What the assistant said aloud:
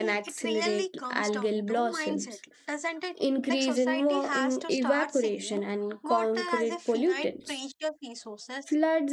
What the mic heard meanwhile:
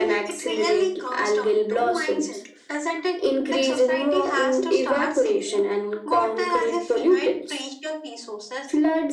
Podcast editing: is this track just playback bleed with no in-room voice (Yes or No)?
Yes